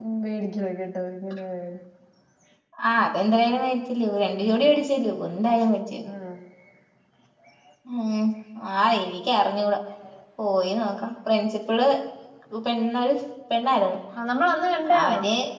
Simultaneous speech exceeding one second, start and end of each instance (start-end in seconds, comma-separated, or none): none